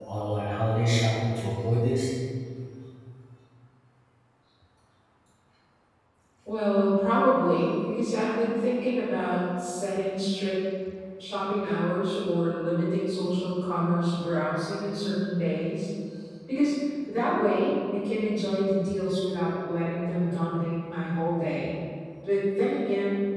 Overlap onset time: none

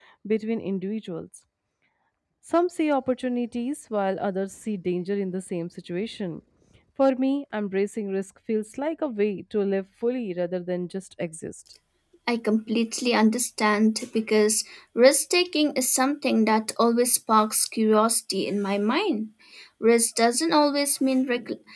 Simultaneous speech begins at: none

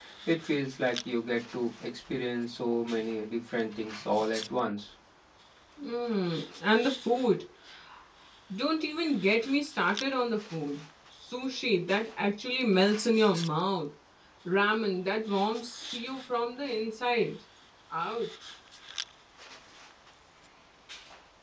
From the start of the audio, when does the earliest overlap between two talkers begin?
none

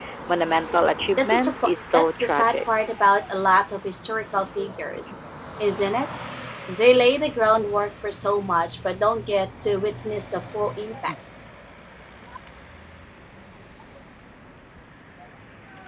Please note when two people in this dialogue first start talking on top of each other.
1.1 s

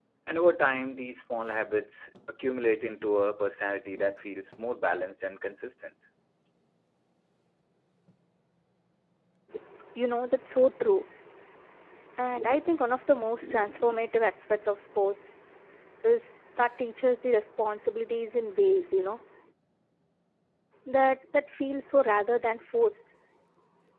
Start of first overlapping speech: none

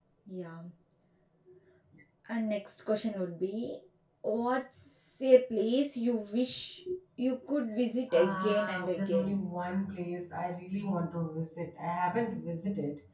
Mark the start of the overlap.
8.1 s

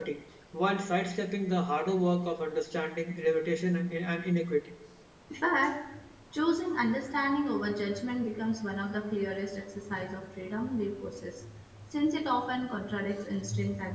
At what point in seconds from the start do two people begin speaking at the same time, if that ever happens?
none

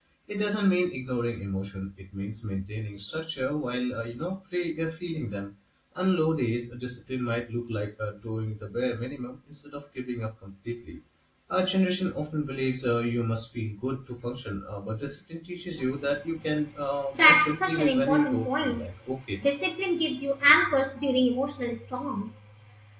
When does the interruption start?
17.1 s

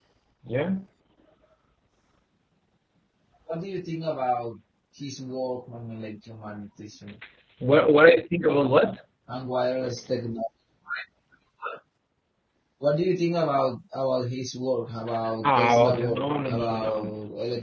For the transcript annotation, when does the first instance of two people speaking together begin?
15.4 s

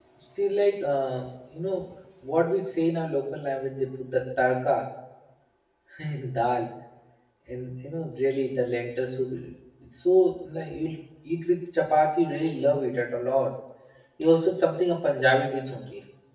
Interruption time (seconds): none

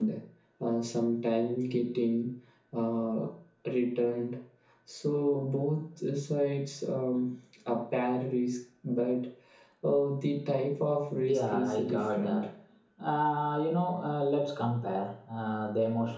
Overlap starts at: 11.2 s

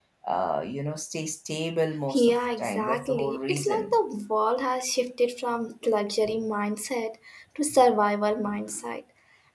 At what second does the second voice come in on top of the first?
2.1 s

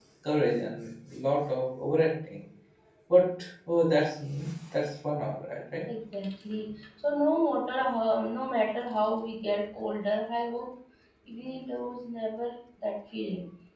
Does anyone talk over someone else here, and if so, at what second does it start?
none

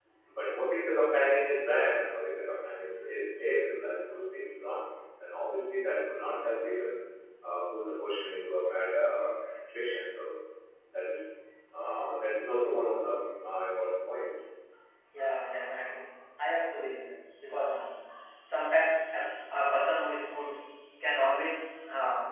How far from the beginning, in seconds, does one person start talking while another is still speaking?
none

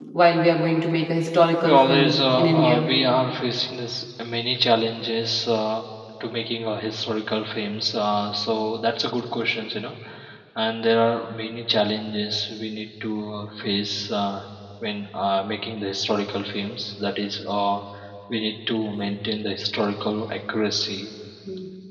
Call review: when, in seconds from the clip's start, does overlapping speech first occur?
1.6 s

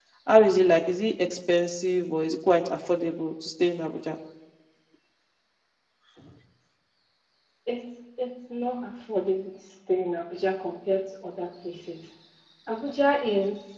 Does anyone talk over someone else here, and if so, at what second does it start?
none

